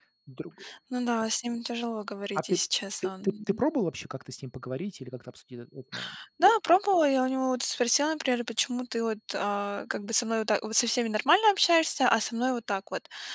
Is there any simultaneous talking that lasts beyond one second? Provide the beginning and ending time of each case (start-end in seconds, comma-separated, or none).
none